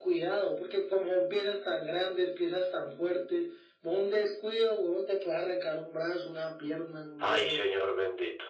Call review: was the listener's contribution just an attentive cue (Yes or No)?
No